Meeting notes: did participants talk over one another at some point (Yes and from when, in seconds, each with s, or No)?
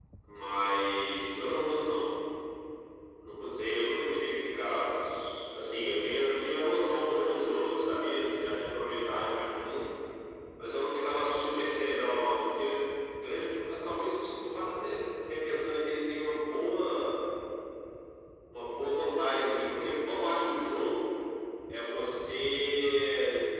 No